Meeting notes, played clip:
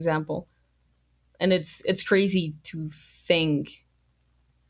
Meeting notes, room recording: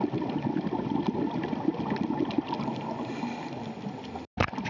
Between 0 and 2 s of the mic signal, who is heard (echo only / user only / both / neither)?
neither